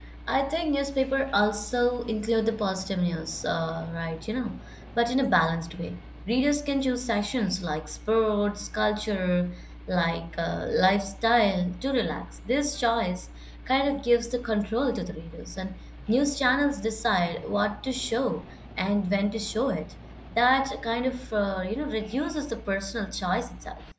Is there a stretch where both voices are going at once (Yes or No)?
No